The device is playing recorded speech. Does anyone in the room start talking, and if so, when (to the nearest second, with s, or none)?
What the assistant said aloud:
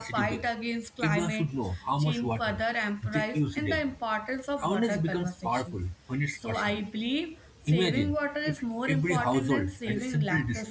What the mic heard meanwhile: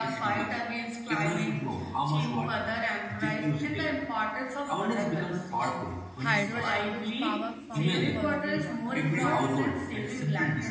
6 s